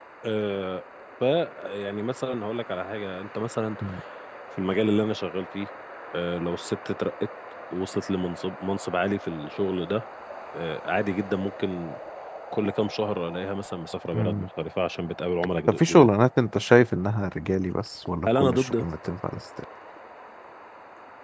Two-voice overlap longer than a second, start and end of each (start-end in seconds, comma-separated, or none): none